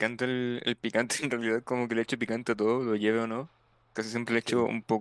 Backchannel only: Yes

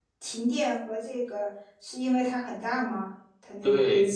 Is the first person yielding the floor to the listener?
Yes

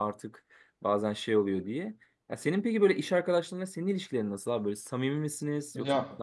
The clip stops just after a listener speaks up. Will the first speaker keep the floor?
No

